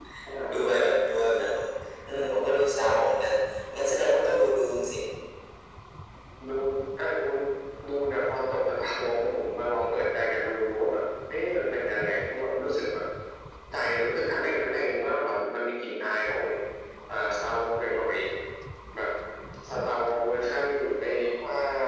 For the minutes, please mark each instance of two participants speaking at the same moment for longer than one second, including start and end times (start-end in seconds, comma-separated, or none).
none